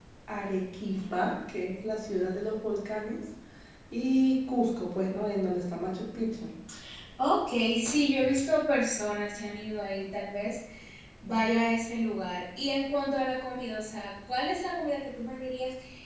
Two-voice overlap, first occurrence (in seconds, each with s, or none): none